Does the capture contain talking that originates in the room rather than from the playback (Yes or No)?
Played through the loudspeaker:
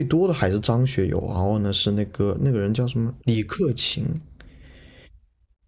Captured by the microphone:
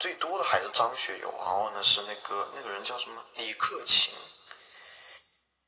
No